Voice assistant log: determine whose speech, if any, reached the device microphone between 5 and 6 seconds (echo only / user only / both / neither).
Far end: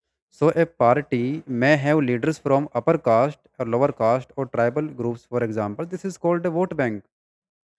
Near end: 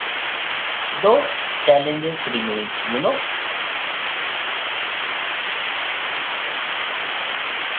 neither